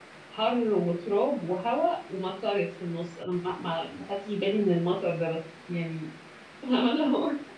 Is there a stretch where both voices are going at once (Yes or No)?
No